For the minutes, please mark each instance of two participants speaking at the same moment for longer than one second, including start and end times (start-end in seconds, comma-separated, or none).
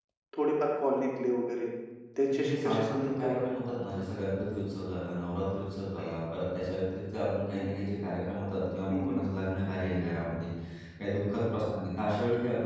2.3-3.6